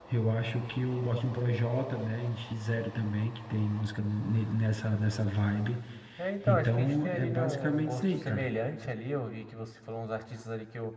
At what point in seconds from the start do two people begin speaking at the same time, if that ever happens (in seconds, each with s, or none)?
6.5 s